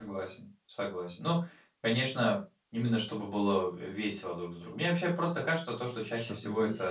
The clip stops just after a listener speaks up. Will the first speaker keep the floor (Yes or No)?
Yes